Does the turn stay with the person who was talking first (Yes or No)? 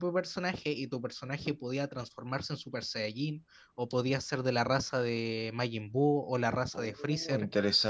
No